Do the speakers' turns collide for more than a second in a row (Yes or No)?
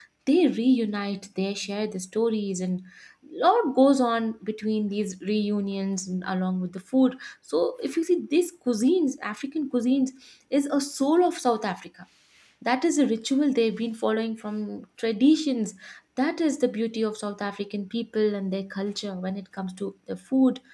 No